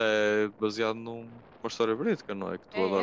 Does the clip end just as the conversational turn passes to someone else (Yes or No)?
Yes